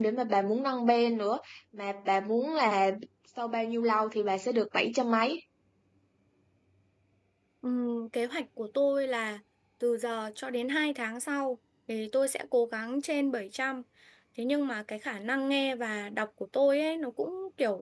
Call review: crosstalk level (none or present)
none